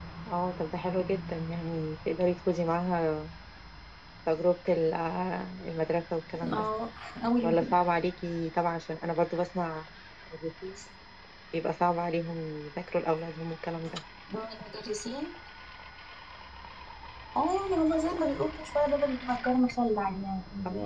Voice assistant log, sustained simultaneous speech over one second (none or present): none